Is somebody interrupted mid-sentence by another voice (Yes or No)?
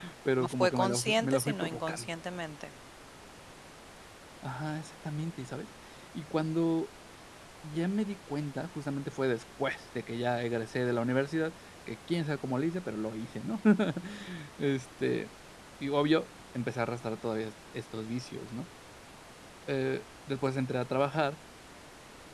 Yes